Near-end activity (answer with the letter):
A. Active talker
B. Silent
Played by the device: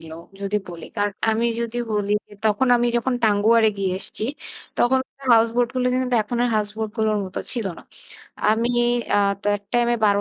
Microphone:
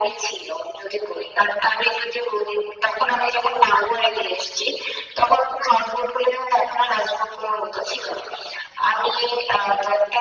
B